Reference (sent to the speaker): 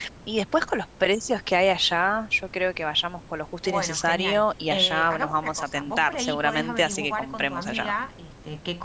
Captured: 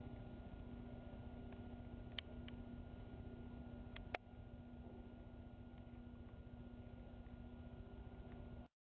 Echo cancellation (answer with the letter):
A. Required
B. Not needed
B